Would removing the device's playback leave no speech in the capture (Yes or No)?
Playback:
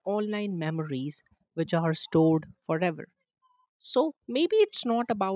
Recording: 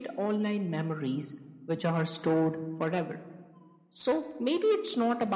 Yes